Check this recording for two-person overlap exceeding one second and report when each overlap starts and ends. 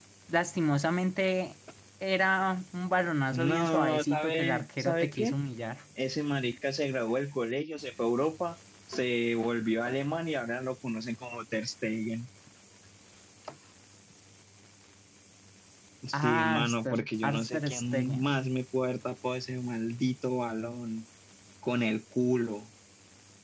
3.3-5.4, 16.1-18.3

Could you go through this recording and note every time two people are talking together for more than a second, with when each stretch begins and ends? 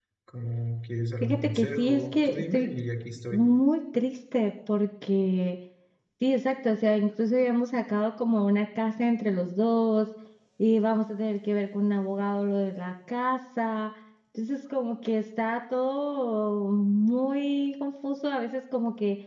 1.2-2.7

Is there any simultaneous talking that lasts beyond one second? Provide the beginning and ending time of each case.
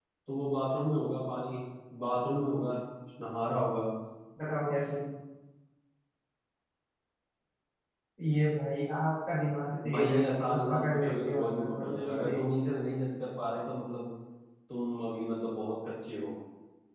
9.9-12.4

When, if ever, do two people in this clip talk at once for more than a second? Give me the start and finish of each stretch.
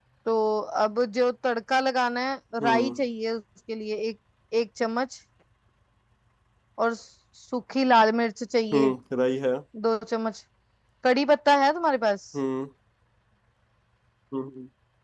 none

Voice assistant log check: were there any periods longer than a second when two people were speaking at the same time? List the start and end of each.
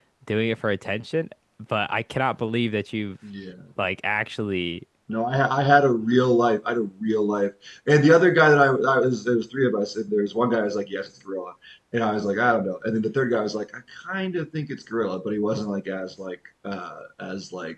none

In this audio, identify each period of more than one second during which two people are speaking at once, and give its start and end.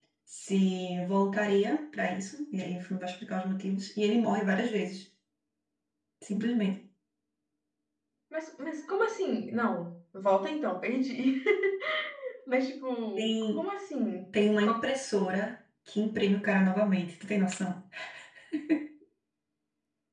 none

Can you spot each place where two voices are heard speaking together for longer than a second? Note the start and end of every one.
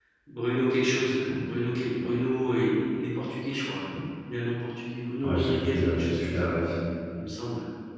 5.2-6.5

